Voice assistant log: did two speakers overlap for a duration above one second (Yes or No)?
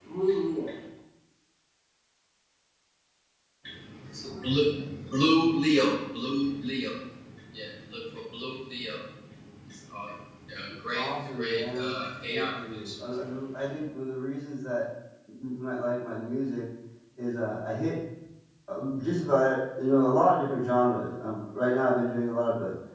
Yes